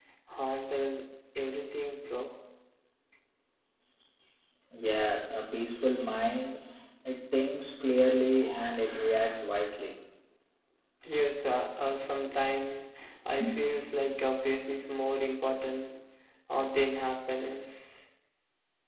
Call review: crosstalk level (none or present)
none